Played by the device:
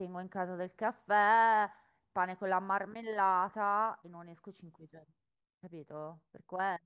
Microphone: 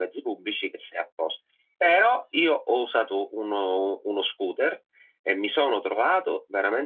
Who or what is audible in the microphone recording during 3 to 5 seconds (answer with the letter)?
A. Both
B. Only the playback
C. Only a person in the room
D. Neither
C